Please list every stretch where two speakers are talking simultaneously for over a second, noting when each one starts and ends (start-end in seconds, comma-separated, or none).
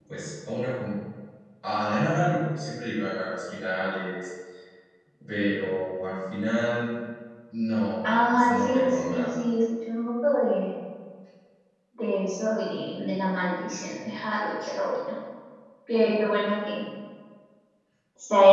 8.0-9.3